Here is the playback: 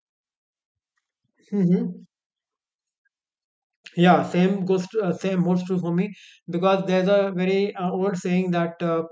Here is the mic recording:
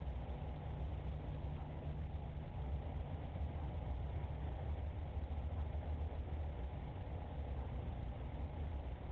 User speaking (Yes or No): No